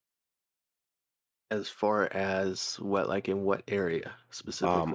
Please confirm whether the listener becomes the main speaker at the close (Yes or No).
Yes